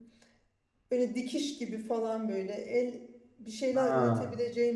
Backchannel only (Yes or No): Yes